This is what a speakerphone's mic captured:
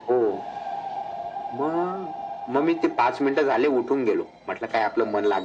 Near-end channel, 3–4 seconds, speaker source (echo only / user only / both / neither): echo only